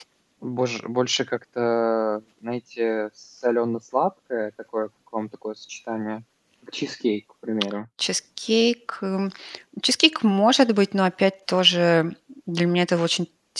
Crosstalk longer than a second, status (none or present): none